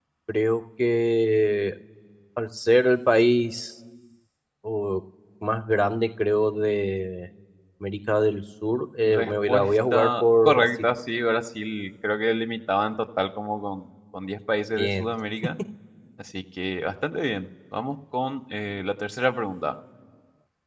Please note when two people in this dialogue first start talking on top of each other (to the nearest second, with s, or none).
9 s